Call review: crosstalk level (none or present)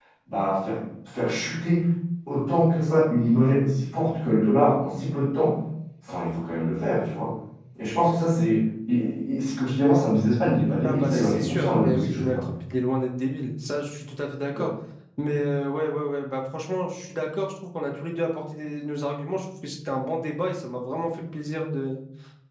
present